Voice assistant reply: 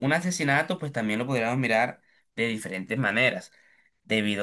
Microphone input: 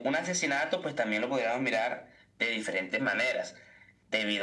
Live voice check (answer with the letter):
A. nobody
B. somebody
A